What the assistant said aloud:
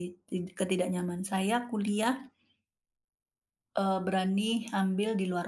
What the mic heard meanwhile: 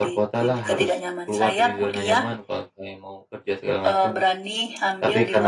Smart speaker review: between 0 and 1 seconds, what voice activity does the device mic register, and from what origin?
both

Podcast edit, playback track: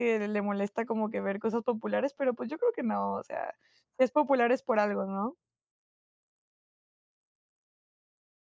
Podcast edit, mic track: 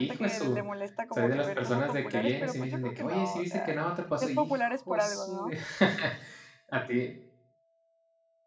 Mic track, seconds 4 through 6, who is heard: both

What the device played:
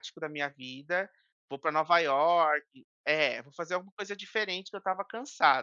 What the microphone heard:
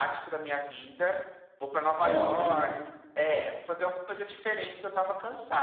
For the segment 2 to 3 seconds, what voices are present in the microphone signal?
both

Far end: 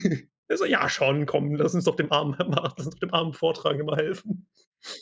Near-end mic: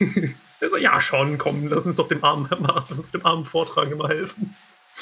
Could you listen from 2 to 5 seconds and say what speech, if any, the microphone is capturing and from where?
echo only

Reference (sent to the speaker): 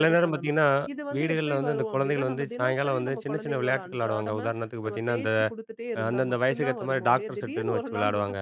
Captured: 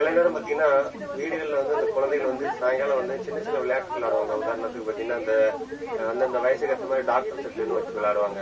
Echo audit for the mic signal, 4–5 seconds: both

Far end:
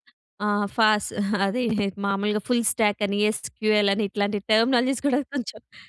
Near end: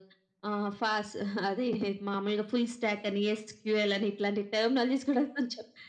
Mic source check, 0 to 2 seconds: echo only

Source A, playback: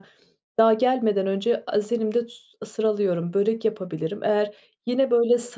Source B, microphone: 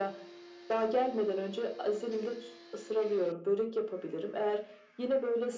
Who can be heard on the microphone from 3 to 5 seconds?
echo only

